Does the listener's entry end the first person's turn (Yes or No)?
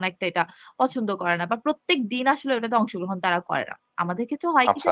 No